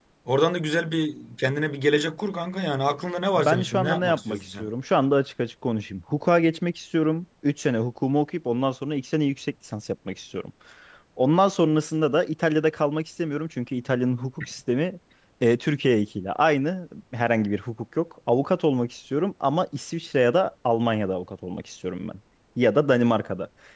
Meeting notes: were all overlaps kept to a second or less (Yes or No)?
No